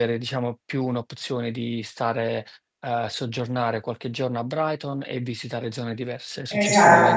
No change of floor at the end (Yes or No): No